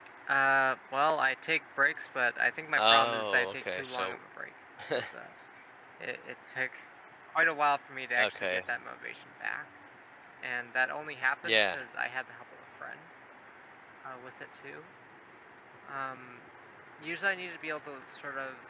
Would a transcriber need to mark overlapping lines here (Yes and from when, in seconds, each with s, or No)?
Yes, from 2.8 s